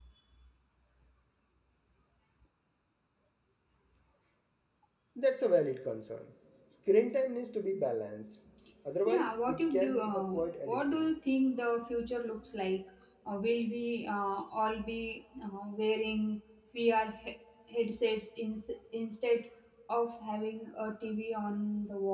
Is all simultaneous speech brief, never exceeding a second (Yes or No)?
No